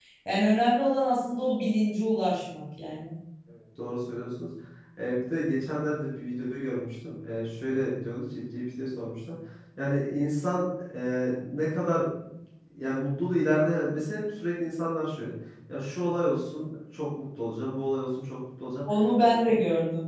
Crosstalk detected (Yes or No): No